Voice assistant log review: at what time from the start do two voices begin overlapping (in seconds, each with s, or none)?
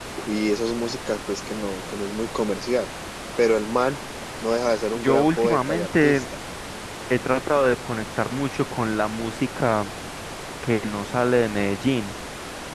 5.0 s